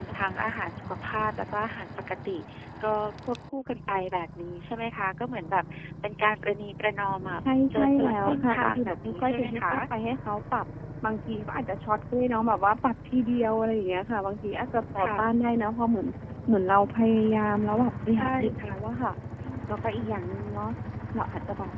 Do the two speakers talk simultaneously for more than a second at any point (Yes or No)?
Yes